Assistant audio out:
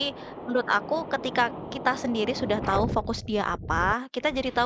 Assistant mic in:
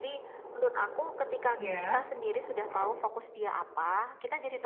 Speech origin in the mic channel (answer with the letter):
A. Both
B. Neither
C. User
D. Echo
A